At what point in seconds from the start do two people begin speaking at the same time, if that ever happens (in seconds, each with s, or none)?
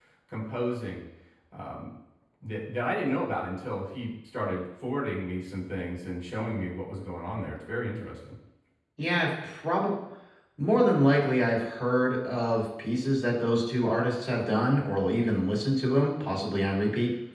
none